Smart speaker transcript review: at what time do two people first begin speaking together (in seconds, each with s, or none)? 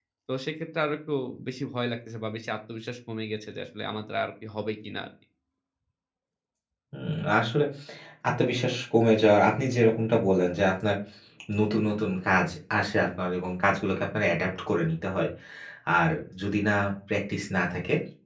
none